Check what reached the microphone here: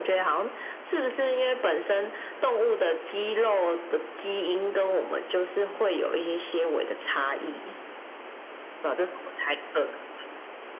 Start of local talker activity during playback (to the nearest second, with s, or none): none